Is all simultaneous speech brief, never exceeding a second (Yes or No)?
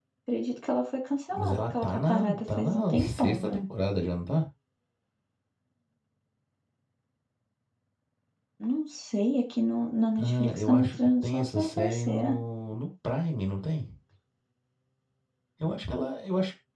No